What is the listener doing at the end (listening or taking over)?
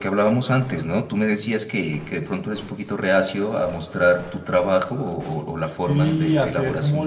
taking over